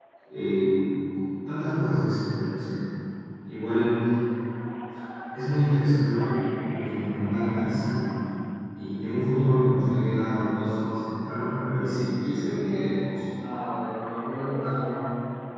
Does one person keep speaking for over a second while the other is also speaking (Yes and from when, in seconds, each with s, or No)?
Yes, from 11.7 s